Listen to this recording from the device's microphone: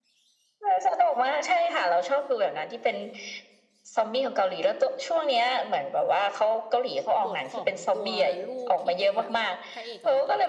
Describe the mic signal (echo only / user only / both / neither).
both